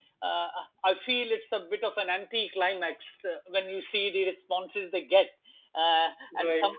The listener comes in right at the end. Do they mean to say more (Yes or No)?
No